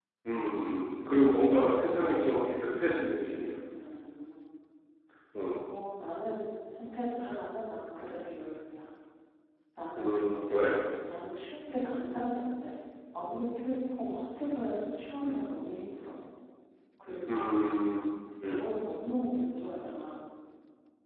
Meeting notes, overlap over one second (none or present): none